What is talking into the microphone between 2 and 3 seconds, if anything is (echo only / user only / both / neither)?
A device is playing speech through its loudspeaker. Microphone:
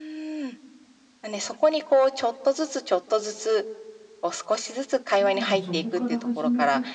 echo only